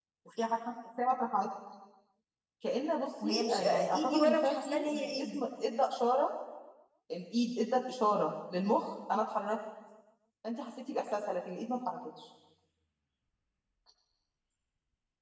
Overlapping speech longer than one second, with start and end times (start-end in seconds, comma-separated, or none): 3.2-5.5